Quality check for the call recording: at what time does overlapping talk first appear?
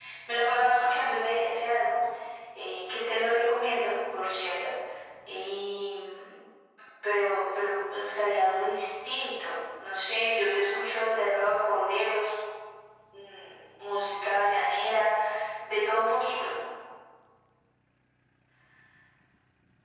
none

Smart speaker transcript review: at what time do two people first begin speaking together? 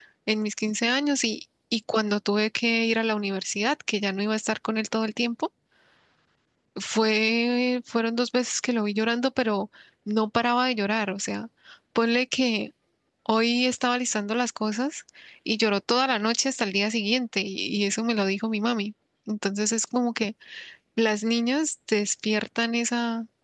none

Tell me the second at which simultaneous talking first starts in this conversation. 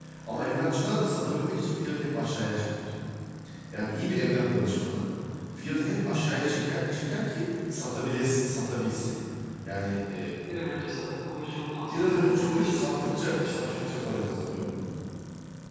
12 s

